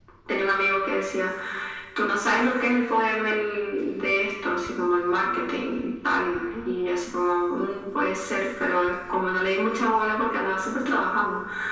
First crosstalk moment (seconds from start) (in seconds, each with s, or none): none